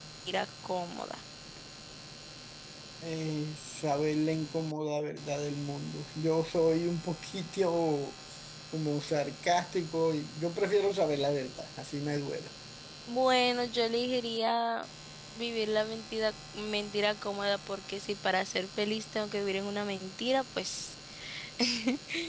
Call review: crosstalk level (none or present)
none